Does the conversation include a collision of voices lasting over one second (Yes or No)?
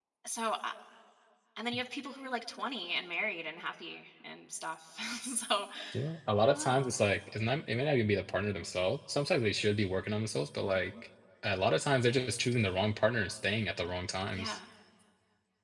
No